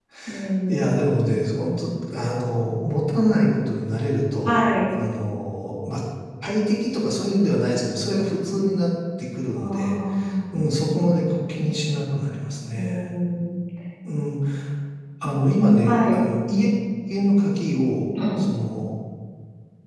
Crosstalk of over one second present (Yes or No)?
No